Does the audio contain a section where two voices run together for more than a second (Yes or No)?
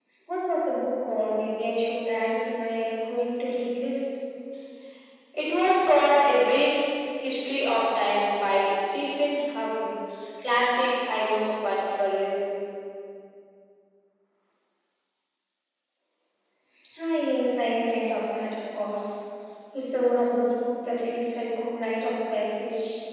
No